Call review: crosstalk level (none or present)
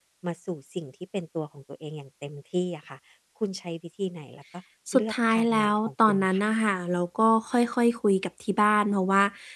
present